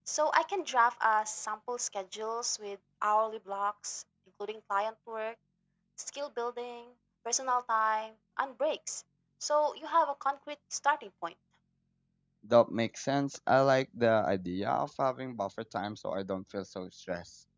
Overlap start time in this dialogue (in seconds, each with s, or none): none